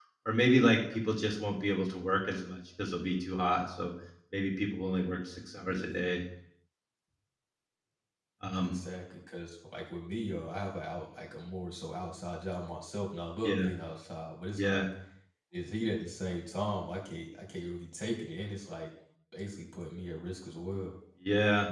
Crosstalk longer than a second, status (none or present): none